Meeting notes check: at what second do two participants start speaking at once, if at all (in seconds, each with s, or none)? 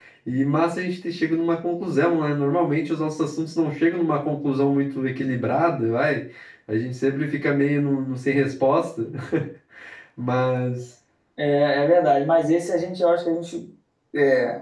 none